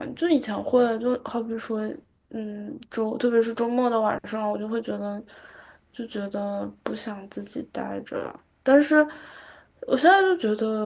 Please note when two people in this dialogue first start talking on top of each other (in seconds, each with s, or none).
none